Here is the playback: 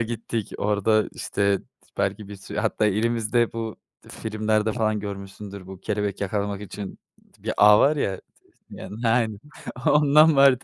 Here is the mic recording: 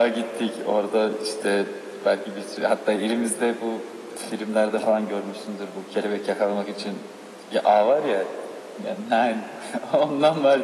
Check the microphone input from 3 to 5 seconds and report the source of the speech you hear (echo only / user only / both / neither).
echo only